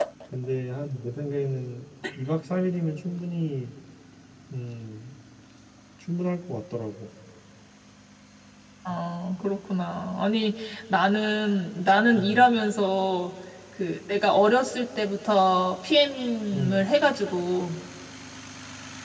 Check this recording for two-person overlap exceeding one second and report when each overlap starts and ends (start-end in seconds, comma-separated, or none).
none